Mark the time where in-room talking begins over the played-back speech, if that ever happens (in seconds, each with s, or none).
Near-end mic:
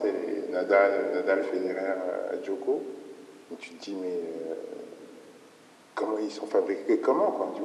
none